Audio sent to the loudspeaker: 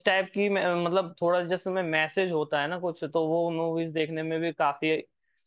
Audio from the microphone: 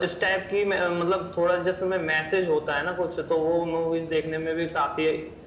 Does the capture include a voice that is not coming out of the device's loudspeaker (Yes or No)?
No